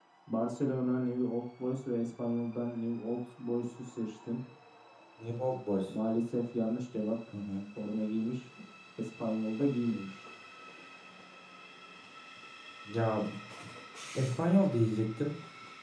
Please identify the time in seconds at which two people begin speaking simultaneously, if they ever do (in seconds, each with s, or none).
none